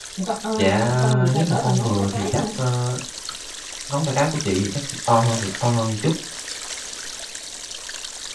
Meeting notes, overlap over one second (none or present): present